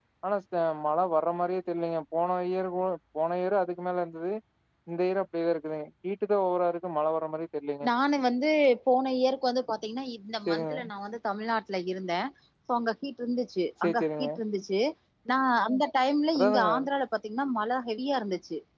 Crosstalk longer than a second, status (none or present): none